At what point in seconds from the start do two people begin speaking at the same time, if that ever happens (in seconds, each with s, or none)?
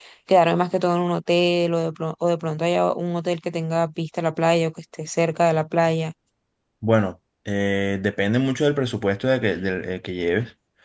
none